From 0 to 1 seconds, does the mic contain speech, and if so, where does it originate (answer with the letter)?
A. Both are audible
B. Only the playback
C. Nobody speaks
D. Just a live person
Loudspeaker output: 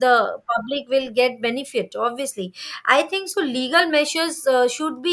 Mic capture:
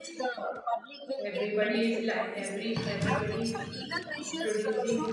B